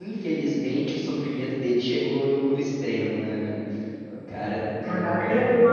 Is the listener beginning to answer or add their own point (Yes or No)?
Yes